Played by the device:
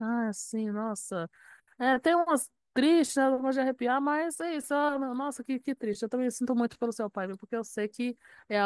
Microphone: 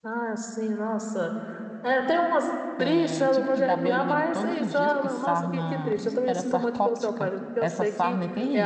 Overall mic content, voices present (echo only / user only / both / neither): both